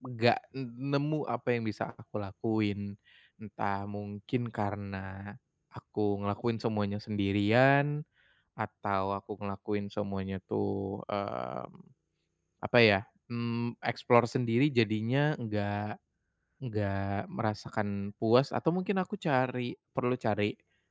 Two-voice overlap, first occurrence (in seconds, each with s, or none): none